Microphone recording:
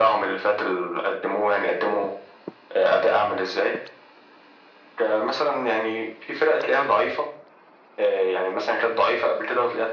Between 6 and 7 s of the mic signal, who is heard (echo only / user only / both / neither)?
echo only